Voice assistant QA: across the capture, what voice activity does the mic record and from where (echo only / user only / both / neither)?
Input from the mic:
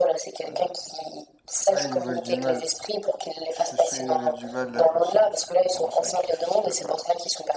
both